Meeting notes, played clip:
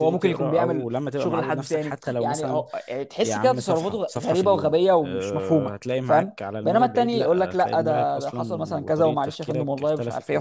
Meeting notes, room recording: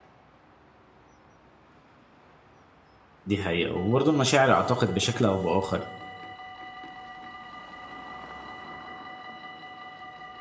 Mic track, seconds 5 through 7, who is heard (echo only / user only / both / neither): user only